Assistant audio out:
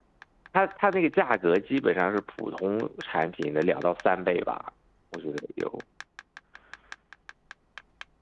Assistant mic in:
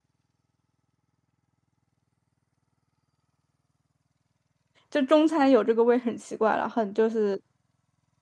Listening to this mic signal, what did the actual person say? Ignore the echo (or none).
就中餐有这个味很奇怪了，很就是